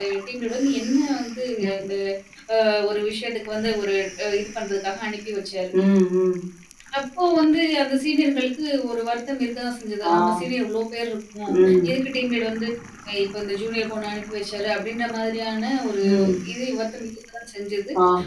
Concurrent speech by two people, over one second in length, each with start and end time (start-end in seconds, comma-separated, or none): none